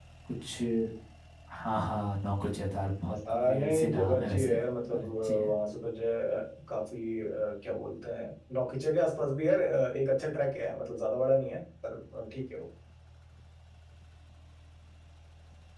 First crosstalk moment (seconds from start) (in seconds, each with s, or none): 3.2 s